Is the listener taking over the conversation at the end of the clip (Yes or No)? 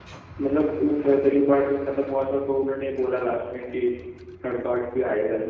Yes